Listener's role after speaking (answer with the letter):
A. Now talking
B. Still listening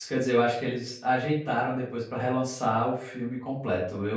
B